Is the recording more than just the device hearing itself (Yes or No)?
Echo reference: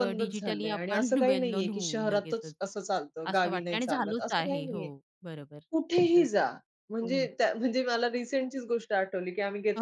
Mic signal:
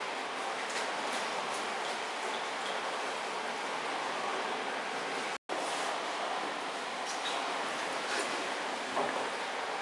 No